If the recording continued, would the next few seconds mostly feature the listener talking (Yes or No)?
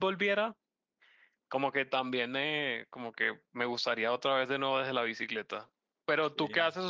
No